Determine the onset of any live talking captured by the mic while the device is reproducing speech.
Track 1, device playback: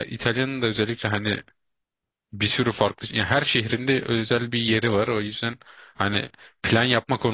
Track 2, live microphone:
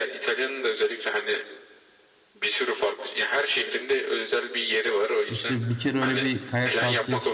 5.3 s

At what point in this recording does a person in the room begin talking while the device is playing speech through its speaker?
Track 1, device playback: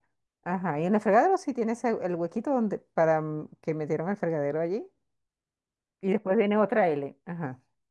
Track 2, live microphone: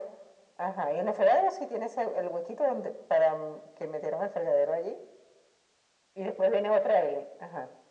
none

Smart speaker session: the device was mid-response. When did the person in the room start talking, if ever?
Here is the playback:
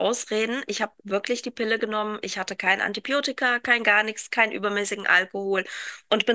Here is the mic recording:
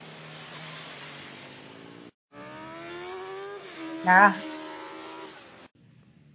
4.0 s

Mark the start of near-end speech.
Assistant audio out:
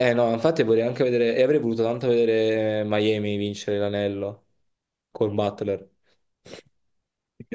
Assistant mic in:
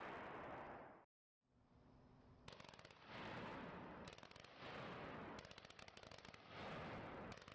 none

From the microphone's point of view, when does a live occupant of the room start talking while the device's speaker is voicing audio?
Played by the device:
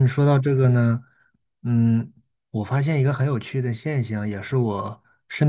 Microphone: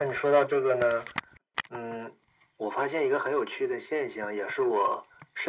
none

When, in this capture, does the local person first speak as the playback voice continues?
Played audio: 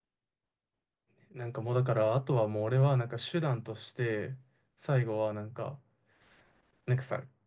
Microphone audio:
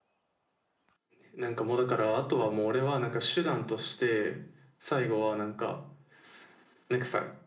none

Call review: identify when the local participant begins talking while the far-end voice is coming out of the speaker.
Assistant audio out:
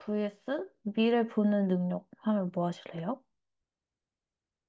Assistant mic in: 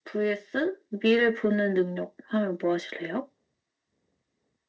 none

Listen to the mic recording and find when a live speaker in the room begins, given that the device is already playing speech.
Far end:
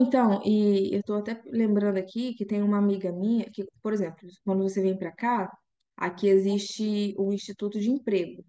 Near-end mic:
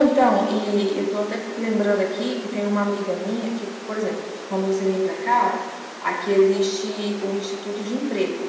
none

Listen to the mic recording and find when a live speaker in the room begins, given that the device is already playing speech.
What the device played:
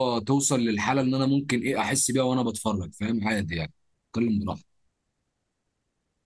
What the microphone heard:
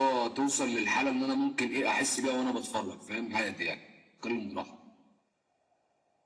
none

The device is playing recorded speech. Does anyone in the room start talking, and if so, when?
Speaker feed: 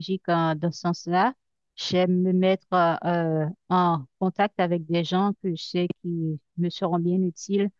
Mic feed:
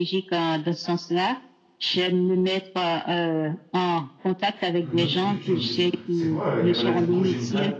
4.8 s

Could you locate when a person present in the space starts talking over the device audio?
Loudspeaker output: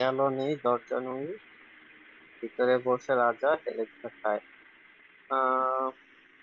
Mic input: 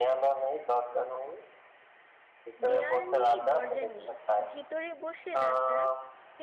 2.7 s

